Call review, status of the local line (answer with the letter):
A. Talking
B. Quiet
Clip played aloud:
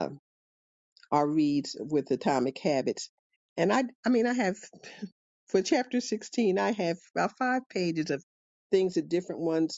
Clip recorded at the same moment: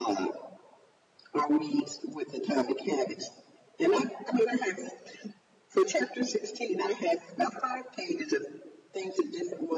B